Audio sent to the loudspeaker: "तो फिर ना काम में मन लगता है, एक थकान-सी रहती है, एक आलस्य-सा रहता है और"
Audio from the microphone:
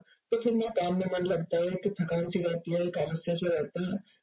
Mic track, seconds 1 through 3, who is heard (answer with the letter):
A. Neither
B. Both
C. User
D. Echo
D